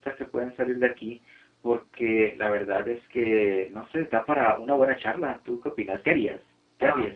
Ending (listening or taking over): taking over